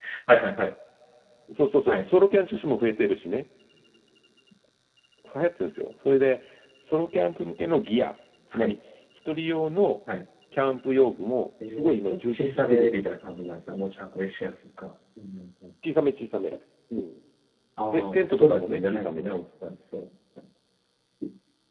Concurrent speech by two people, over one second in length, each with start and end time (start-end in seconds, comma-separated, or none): 11.7-13.1, 17.9-19.4